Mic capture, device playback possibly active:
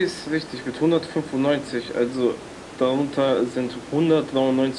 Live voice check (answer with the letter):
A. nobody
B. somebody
A